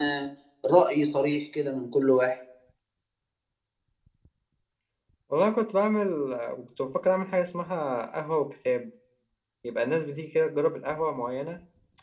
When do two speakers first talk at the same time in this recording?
none

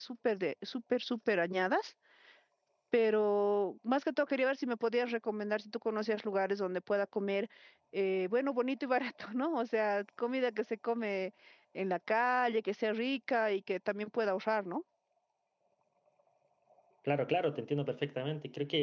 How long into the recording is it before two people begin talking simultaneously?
none

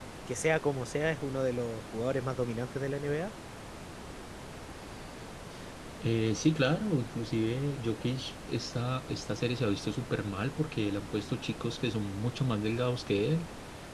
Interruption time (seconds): none

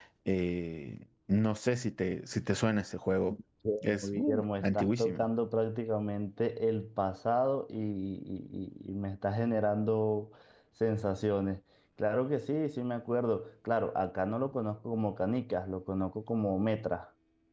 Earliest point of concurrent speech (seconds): 3.8 s

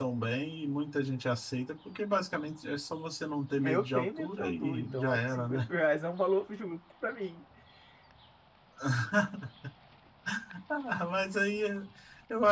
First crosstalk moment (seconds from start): 3.6 s

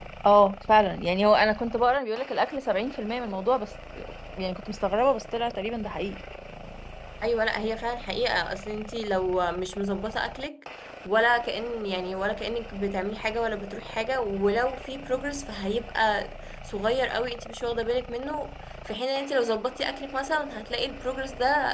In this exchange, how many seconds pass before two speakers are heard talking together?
none

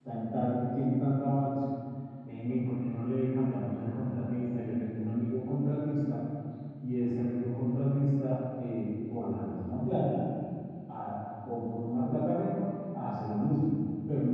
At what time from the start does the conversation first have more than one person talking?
none

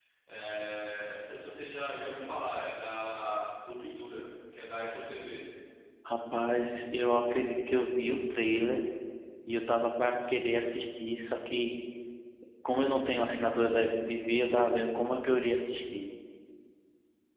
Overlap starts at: none

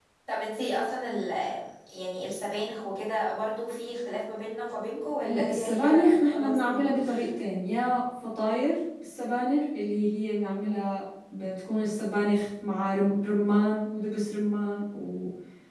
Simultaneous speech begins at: 5.2 s

